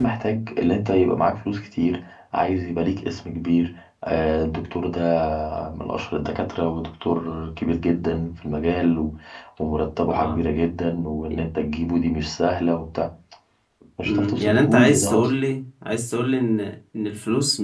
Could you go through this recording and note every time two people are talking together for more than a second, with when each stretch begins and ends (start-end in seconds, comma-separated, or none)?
14.0-15.3